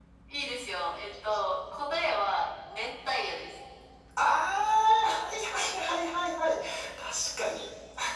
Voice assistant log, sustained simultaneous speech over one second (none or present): none